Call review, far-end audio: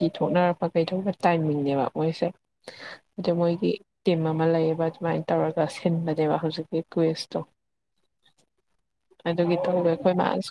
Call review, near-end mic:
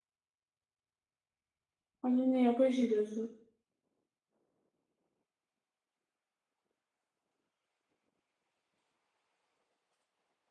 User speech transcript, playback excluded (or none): ꯑꯗꯨꯅꯦ ꯑꯩꯈꯣꯏ ꯁꯤꯗꯁꯨ